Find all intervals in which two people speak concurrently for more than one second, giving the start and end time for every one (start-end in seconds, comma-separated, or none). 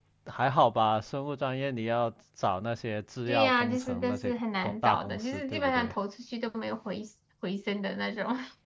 3.3-5.9